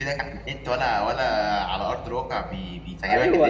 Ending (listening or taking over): taking over